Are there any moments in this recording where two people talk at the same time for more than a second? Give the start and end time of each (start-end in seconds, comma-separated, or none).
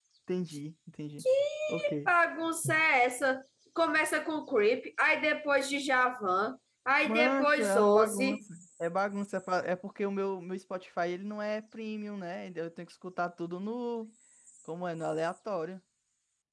7.0-8.4